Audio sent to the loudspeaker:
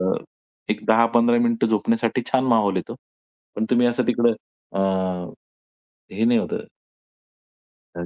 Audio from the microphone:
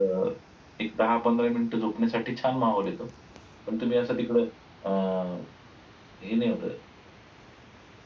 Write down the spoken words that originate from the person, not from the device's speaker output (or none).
none